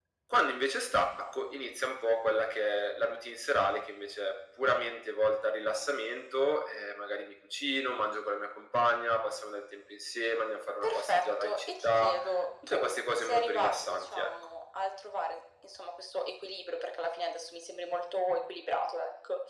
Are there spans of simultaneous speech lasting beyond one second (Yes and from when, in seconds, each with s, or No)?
Yes, from 10.8 s